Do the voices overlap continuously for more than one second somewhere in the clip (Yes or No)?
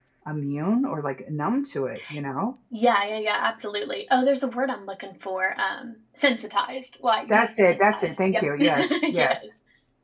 Yes